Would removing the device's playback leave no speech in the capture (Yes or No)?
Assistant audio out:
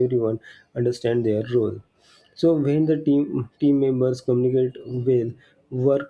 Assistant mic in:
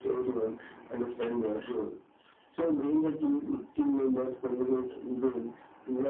Yes